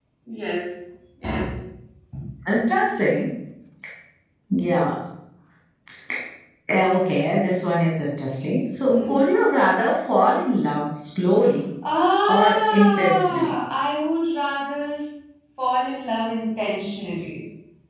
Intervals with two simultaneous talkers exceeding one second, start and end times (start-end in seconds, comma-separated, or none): 12.3-13.5